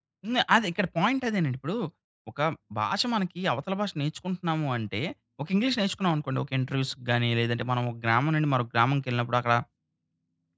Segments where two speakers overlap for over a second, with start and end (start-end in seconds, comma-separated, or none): none